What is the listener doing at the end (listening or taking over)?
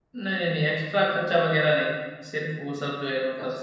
taking over